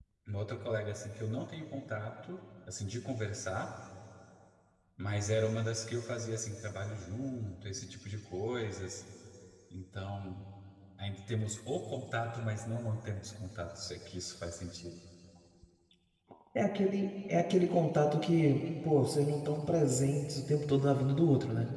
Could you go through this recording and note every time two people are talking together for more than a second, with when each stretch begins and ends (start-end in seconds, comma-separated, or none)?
none